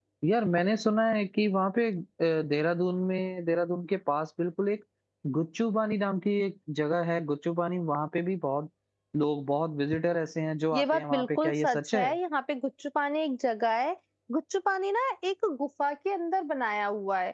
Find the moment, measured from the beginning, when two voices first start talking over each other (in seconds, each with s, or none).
10.7 s